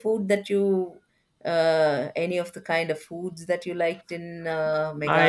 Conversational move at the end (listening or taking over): taking over